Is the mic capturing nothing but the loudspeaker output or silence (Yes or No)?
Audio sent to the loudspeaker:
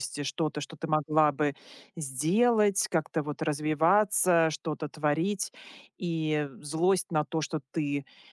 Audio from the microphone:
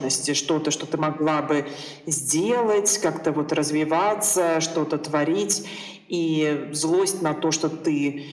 Yes